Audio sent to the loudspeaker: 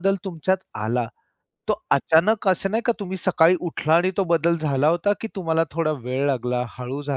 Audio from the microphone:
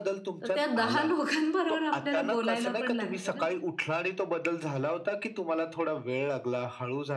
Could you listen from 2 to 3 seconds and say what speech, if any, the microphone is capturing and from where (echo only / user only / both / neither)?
both